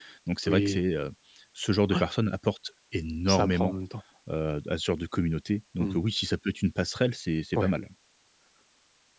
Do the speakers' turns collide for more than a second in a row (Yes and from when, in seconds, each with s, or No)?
No